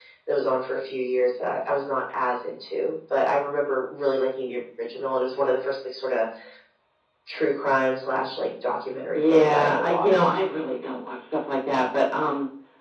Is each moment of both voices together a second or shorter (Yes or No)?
No